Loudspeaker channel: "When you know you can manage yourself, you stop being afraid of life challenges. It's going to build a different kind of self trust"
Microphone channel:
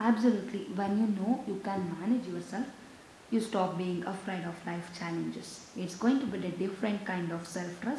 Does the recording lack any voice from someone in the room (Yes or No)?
Yes